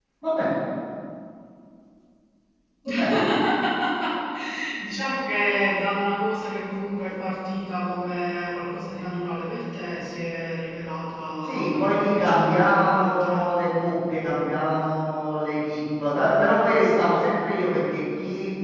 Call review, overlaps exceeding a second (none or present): present